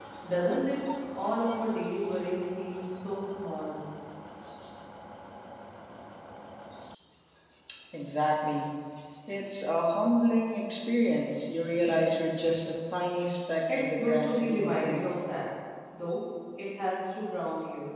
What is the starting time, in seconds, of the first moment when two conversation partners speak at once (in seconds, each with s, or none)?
13.7 s